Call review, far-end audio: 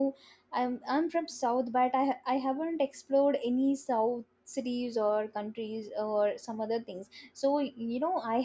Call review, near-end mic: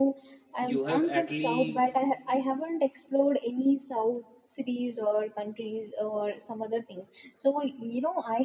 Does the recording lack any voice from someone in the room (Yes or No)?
No